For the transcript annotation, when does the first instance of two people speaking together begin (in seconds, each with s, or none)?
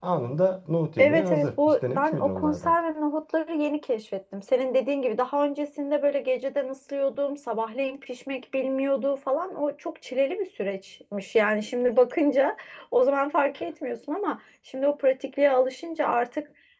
1.0 s